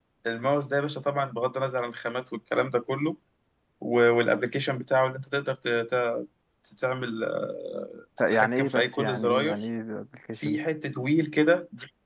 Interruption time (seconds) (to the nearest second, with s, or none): 8 s